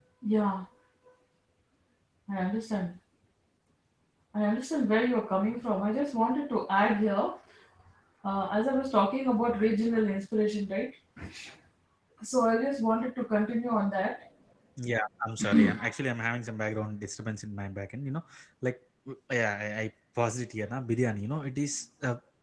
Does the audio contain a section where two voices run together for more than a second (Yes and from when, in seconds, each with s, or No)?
No